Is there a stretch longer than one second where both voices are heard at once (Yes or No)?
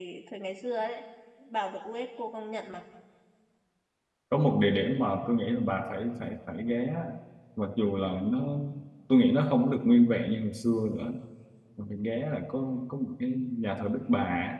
No